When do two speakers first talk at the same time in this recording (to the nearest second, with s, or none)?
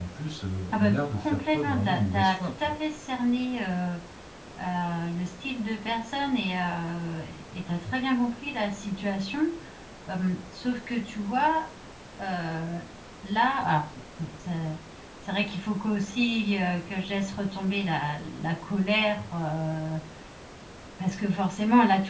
1 s